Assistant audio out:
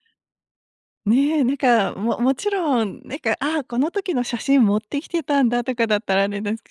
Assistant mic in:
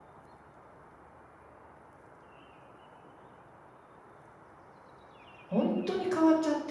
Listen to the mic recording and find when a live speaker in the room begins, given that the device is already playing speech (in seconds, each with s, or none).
5.4 s